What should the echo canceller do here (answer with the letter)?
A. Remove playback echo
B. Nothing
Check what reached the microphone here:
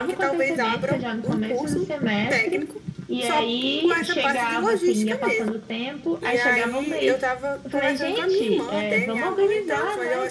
A